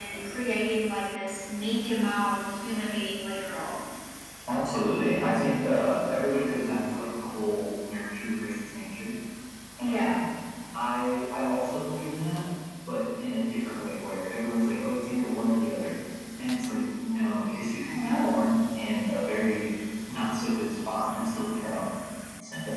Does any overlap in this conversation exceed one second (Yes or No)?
No